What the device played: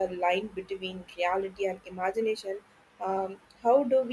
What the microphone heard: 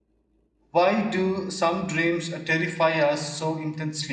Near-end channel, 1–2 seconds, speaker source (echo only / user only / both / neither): user only